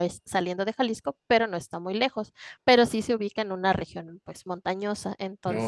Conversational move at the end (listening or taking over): listening